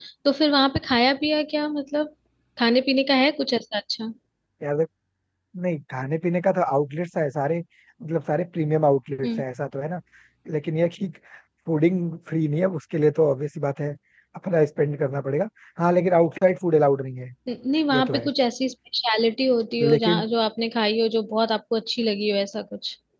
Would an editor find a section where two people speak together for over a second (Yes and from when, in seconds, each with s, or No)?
No